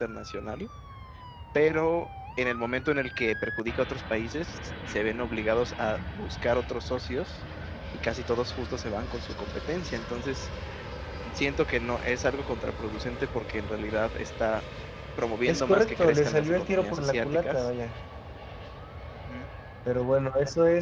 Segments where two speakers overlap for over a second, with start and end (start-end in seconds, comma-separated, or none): 15.5-17.7